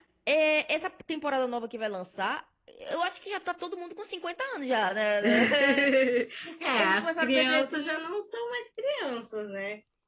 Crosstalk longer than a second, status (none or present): present